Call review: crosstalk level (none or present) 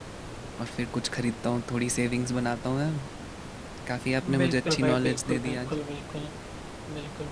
present